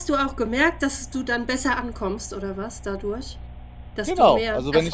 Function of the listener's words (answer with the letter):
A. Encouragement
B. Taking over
B